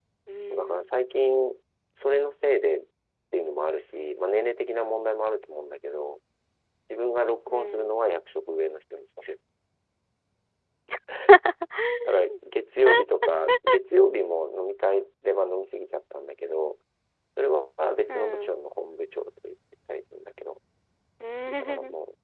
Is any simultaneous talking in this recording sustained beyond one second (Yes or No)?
No